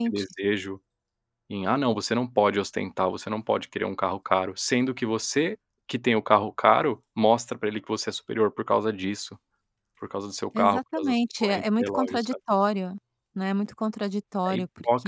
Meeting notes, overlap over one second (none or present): present